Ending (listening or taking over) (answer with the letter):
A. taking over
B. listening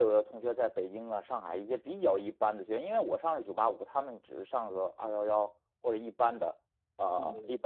B